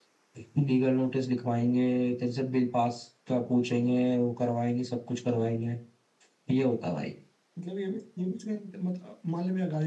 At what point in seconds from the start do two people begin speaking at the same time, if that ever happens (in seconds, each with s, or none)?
none